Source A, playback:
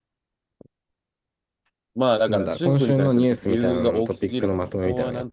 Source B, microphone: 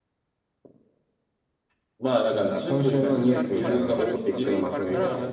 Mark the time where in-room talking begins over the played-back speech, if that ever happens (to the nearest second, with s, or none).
3 s